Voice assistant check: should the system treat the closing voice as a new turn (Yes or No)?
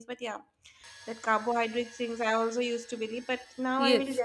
Yes